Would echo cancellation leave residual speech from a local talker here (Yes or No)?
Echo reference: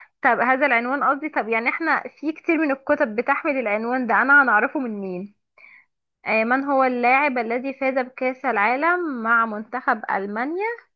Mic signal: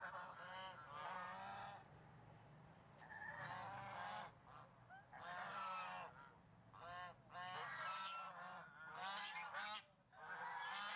No